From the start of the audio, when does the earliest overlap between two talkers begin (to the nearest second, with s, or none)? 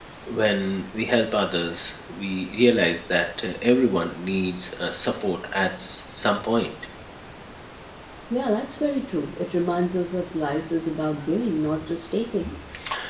none